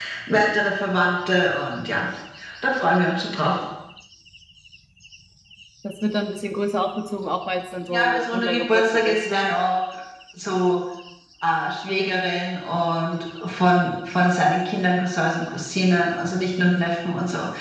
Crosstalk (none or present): present